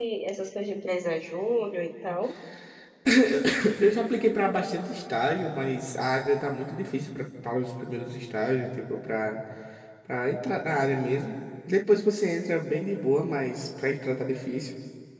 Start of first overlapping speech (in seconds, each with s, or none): none